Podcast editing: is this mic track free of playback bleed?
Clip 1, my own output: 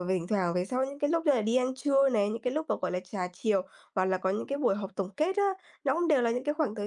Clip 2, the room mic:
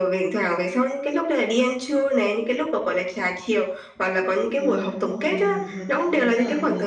No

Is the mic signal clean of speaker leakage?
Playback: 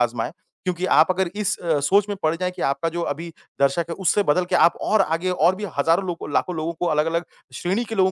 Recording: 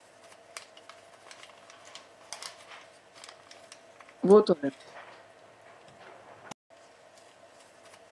Yes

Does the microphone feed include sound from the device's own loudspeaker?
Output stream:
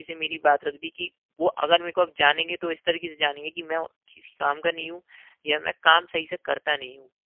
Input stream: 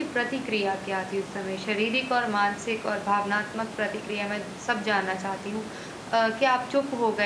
No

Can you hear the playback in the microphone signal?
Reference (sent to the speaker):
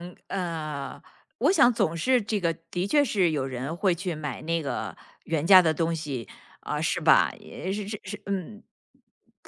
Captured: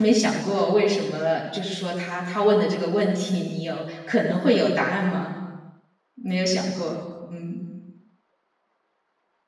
No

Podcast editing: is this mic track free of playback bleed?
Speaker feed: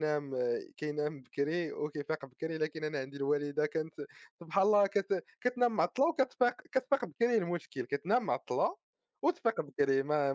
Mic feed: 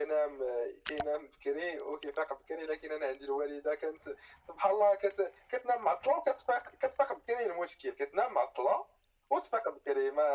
No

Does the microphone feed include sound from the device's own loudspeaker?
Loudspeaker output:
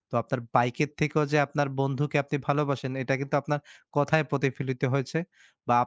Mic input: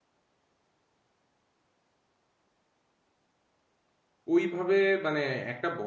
No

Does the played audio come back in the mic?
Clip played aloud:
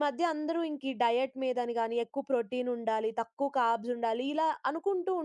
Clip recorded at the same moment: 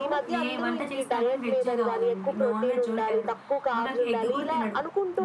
Yes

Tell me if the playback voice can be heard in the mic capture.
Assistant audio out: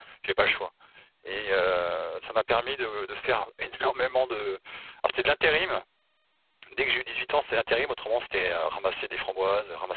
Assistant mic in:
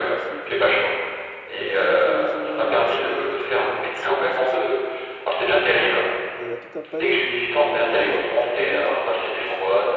Yes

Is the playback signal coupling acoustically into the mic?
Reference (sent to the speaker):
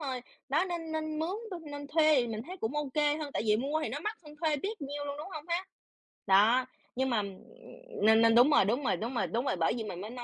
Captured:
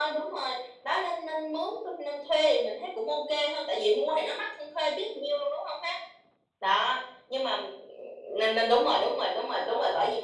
Yes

